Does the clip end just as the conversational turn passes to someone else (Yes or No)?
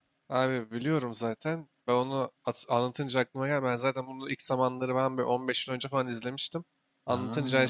No